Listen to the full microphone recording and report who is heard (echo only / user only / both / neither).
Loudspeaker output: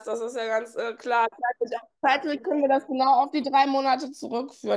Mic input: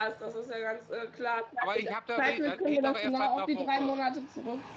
both